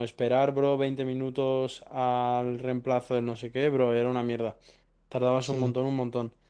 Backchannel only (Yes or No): Yes